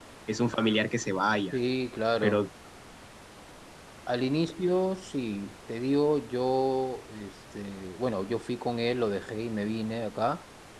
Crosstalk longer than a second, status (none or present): none